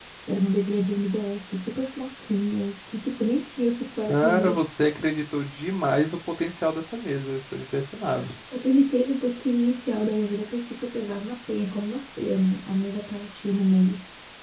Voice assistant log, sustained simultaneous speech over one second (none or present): none